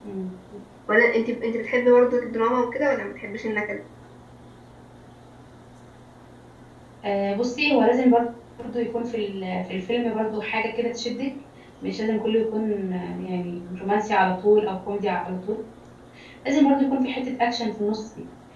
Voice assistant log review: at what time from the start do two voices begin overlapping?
none

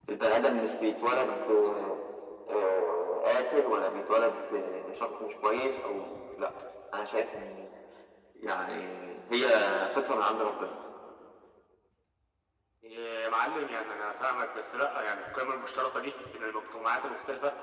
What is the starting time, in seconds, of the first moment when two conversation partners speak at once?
none

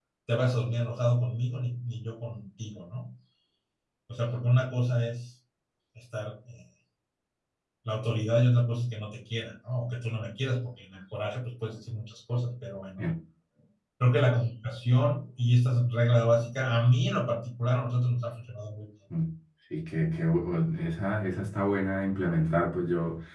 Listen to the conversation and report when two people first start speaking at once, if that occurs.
none

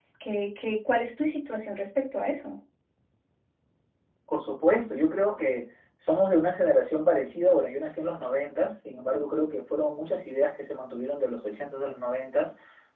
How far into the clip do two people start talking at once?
none

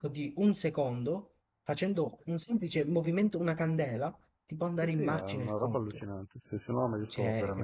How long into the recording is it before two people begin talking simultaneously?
4.8 s

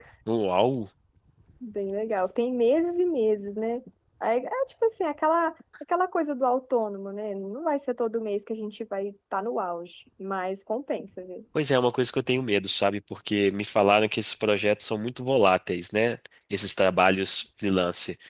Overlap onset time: none

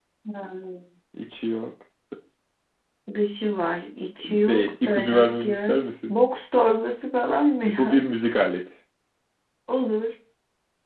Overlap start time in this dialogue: 4.2 s

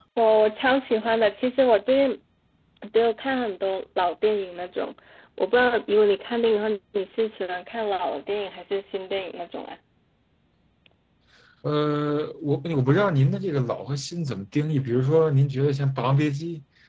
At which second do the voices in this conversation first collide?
none

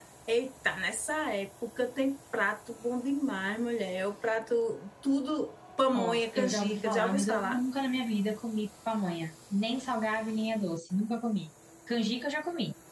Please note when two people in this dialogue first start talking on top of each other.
5.9 s

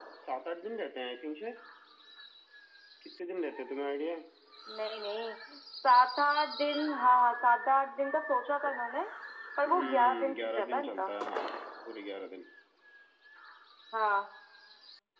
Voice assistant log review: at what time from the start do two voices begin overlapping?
9.6 s

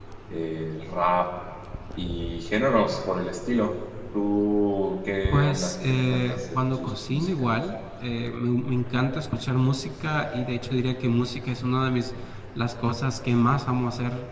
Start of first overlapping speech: 5.3 s

